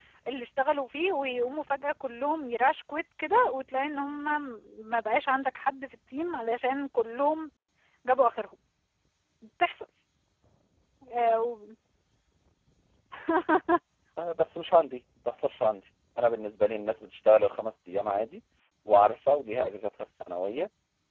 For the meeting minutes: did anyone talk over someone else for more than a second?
No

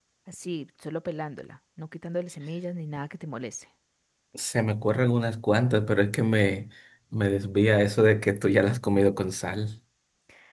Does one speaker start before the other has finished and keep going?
No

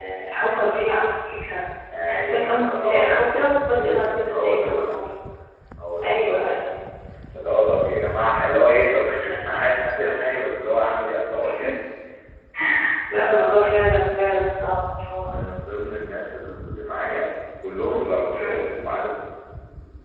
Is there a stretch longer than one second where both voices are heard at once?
Yes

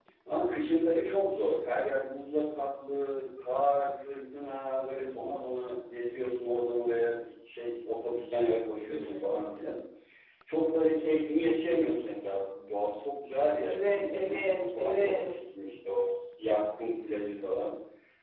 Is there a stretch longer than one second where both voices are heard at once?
Yes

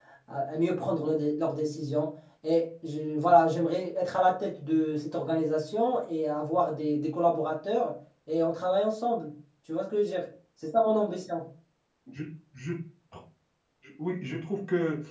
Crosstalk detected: No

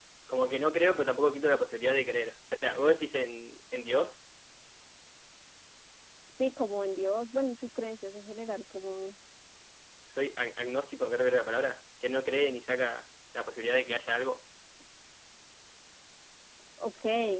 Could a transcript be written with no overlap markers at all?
Yes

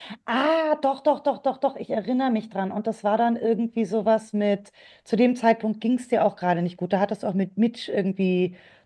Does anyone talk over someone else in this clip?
No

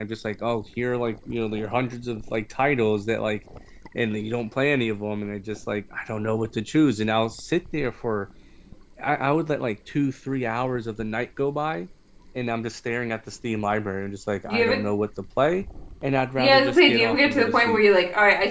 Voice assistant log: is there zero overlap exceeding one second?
No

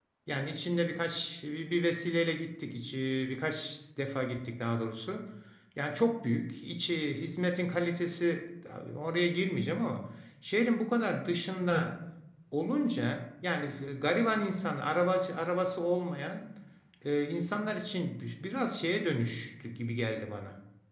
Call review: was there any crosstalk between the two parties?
No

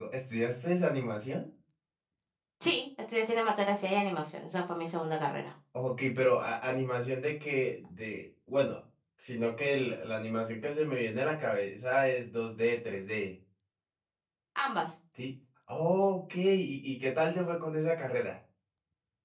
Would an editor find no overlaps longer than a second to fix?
Yes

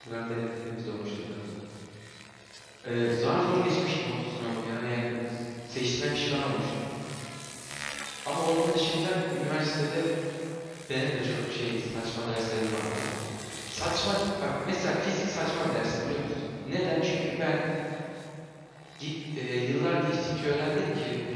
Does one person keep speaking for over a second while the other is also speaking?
No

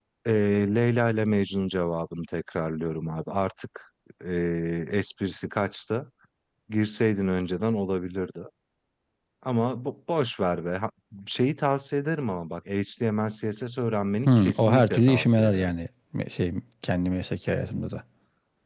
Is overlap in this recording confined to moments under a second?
No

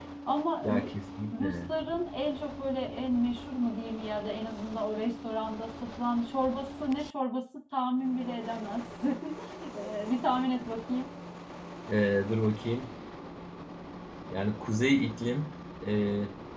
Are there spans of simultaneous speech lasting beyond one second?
No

